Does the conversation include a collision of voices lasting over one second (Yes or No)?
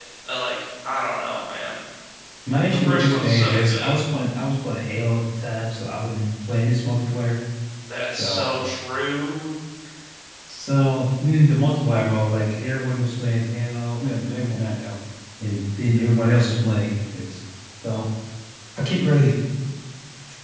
Yes